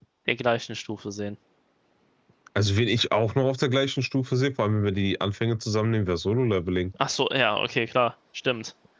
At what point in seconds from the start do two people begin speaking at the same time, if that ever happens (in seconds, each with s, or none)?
none